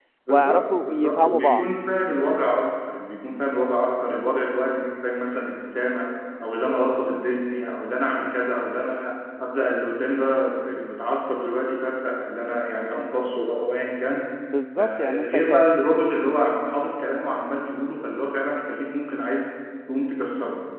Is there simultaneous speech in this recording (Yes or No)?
Yes